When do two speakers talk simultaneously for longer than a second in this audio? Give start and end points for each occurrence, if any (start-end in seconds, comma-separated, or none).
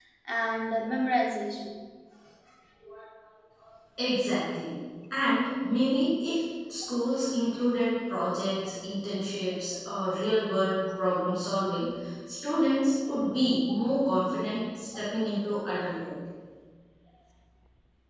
none